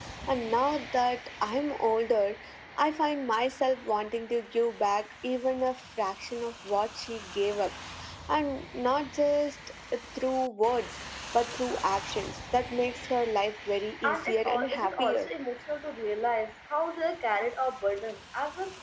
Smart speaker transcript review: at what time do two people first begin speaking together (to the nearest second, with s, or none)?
14 s